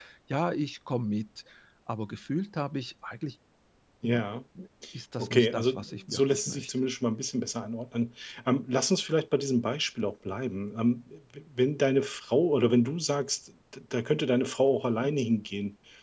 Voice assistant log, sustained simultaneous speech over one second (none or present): present